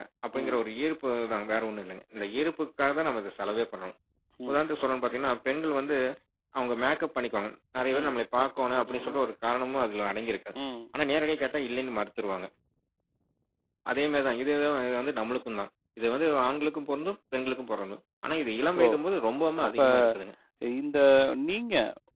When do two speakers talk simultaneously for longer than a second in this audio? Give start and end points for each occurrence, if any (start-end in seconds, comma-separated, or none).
none